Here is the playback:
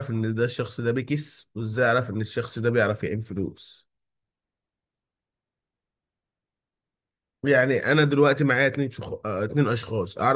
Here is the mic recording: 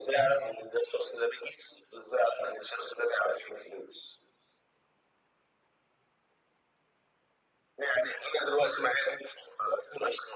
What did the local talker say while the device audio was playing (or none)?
none